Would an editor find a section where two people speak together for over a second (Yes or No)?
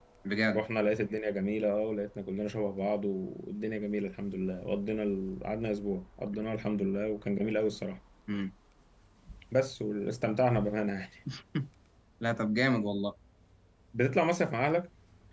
No